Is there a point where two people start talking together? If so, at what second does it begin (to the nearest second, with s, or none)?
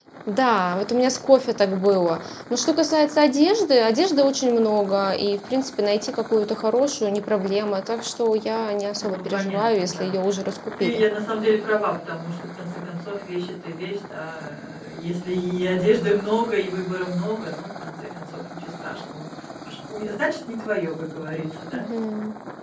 9 s